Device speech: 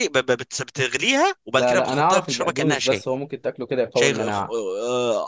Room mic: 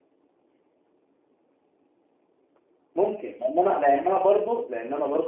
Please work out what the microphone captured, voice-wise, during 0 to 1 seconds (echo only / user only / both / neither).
neither